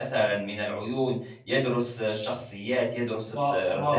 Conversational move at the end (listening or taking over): taking over